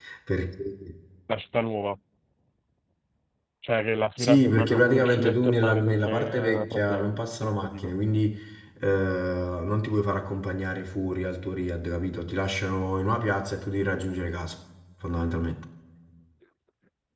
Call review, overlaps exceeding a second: present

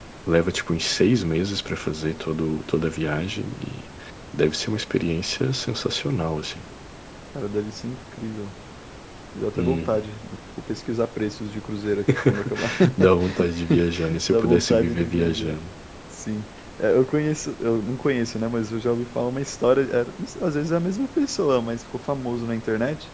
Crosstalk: present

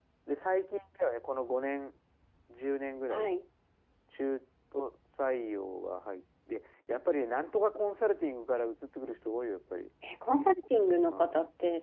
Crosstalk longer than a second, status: none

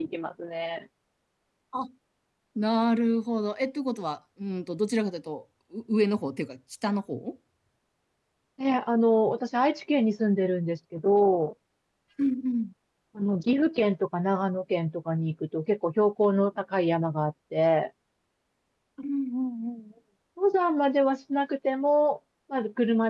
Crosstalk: none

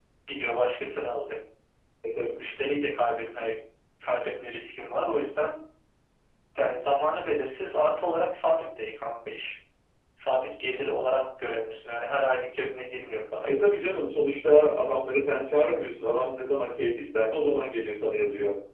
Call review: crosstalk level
none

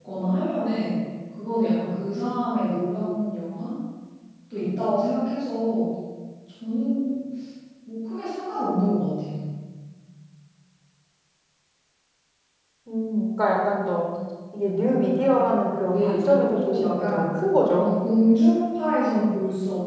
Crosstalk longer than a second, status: present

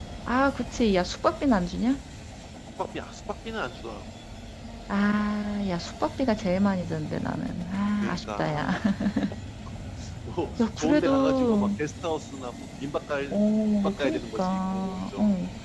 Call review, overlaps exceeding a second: present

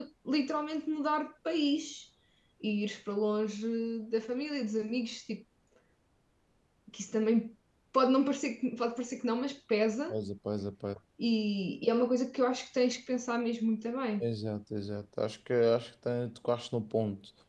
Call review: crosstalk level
none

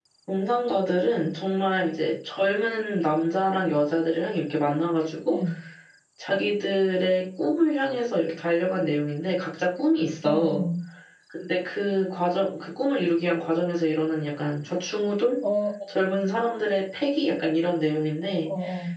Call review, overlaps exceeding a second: none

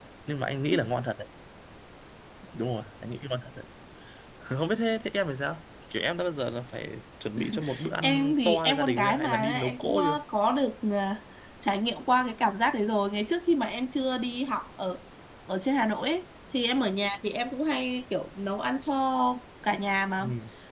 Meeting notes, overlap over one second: present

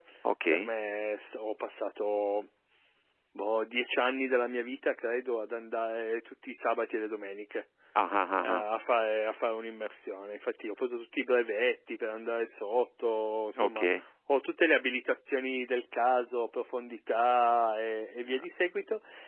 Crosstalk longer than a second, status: none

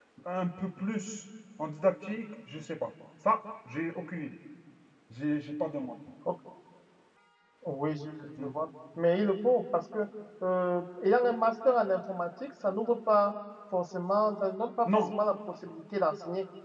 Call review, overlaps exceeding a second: none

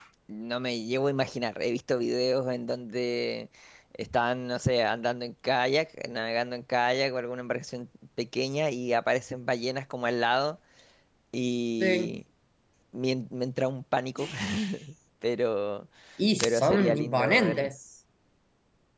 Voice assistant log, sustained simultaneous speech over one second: present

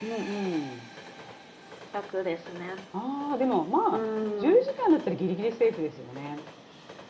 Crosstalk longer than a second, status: none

